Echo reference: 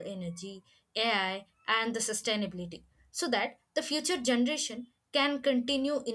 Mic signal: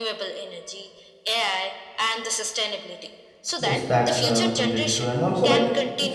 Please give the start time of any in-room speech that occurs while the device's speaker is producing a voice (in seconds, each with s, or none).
3.6 s